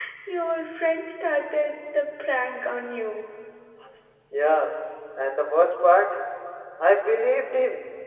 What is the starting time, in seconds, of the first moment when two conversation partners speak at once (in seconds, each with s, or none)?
none